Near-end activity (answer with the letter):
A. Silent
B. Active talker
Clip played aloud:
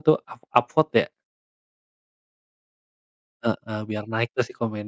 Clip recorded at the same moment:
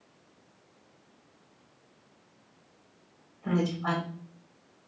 B